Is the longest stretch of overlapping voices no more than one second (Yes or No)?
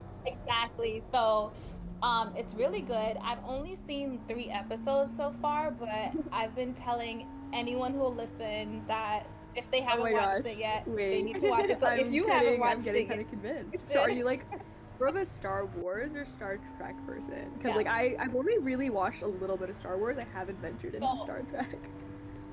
No